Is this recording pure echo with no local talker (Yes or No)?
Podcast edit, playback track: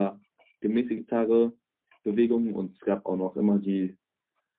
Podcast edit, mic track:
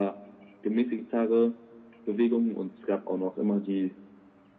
Yes